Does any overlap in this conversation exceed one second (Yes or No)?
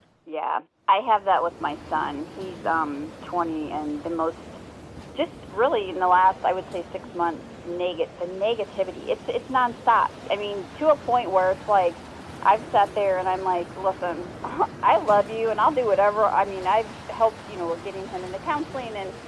No